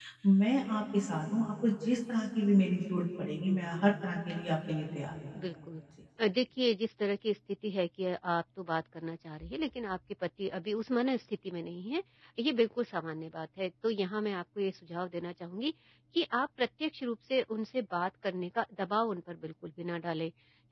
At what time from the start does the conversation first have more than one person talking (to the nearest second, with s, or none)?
none